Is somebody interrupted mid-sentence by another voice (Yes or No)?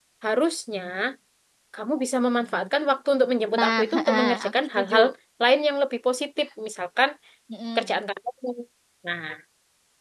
Yes